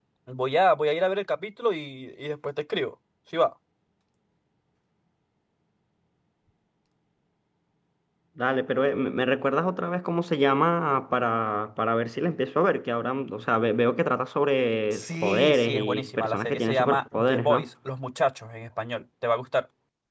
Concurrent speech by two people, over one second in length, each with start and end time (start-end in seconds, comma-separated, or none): 14.9-17.7